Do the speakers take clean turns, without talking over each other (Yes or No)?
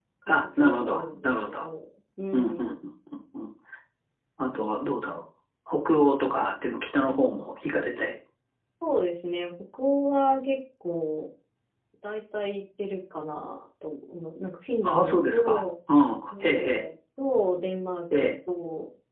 No